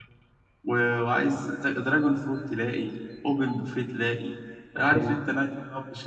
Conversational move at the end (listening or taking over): listening